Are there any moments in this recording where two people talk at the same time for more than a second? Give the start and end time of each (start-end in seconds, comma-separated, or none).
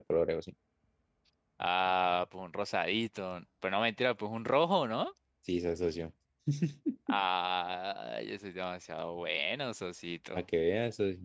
none